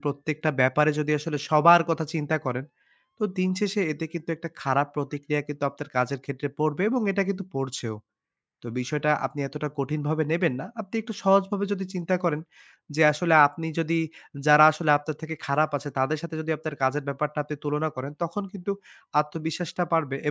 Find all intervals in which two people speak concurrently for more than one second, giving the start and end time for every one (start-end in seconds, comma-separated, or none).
none